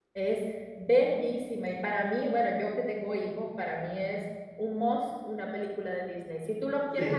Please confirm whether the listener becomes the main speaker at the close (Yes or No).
No